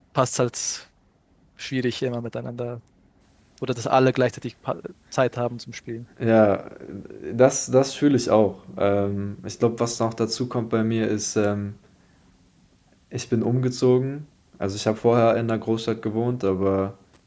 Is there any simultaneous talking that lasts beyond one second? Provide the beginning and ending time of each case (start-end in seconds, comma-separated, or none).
none